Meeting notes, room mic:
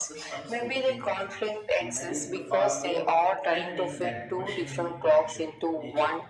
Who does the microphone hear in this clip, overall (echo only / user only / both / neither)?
both